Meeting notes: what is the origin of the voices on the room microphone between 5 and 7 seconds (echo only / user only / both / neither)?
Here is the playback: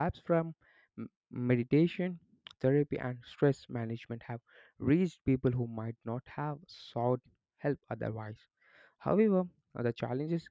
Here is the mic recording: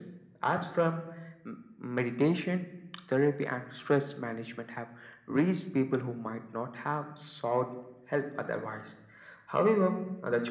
echo only